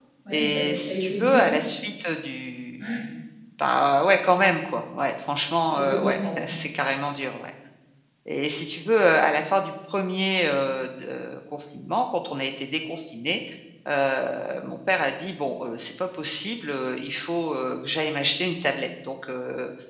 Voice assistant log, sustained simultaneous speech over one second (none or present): present